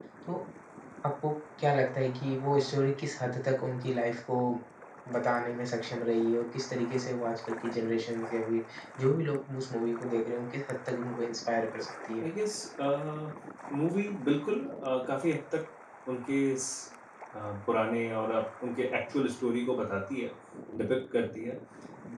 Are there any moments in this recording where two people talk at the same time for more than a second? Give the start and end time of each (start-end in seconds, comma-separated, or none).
none